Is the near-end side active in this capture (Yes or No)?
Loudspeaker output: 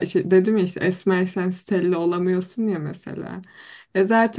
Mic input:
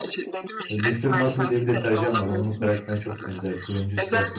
Yes